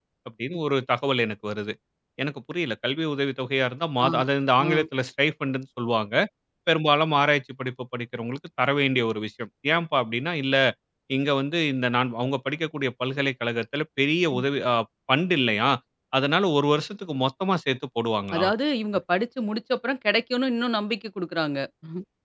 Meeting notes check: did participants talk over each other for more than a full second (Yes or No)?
No